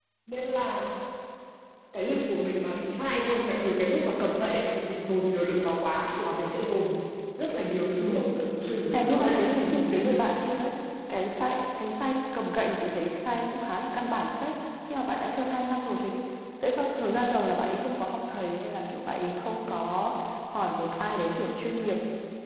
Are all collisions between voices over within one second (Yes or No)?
No